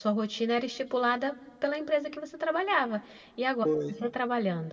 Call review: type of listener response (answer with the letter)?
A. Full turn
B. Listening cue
B